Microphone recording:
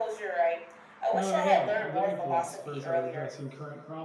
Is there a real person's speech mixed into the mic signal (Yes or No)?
Yes